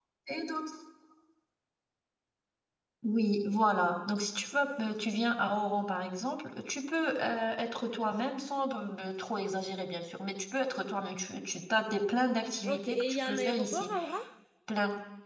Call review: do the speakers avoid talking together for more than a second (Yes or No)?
No